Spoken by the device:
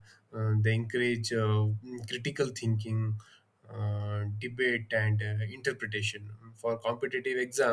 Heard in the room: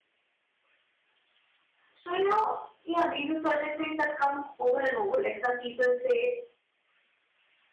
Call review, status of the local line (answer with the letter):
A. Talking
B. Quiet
A